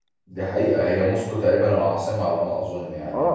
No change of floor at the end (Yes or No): No